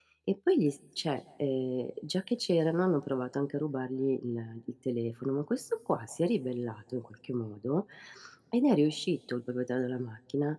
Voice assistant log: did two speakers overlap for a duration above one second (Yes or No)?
No